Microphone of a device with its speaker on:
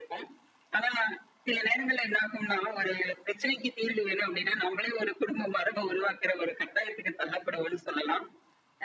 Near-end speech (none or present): none